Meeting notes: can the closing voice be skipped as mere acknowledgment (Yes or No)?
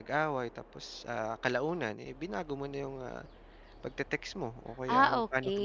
No